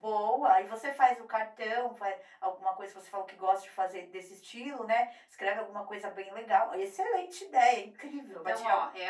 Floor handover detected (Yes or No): Yes